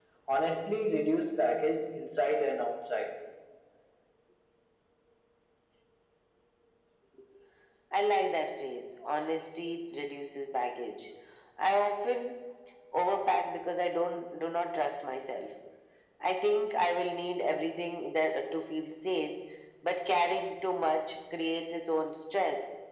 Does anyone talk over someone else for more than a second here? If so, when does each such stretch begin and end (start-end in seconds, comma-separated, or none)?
none